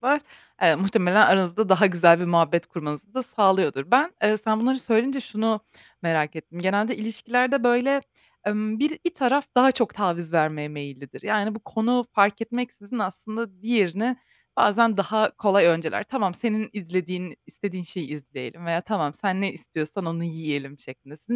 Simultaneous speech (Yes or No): No